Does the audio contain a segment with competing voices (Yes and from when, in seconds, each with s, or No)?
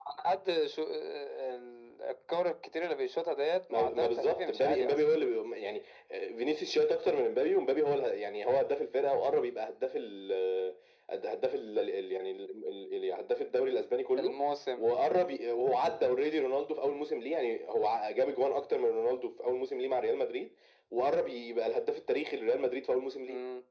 Yes, from 3.7 s